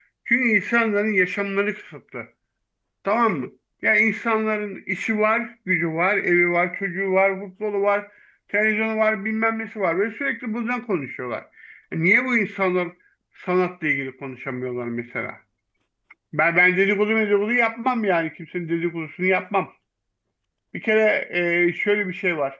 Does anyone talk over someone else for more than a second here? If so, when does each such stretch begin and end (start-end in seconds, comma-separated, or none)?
none